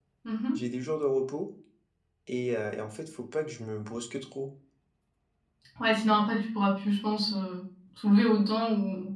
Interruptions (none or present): none